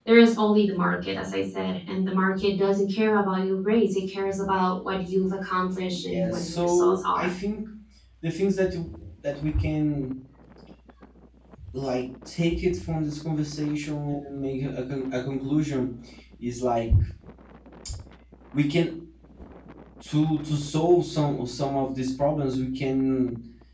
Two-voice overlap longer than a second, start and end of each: 5.9-7.3

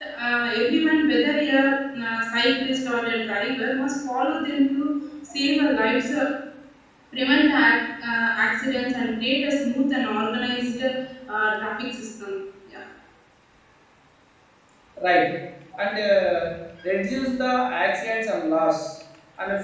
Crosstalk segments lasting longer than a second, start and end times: none

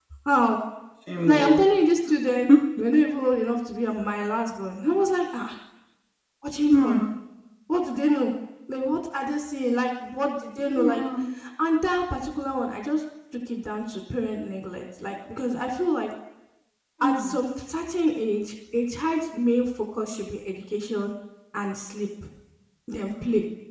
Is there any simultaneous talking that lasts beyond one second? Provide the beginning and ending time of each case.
none

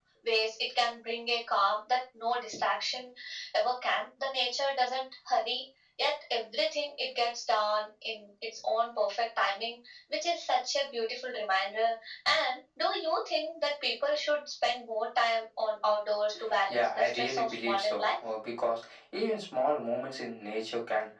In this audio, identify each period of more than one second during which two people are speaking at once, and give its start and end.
16.7-18.1

